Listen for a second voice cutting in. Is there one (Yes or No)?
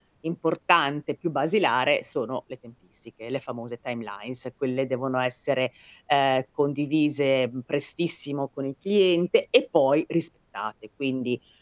No